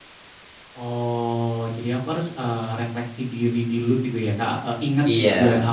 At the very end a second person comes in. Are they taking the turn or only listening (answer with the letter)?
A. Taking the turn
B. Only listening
B